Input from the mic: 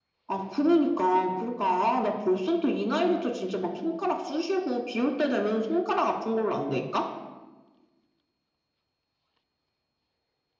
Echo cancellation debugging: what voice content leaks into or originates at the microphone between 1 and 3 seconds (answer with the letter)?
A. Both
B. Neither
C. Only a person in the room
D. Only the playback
D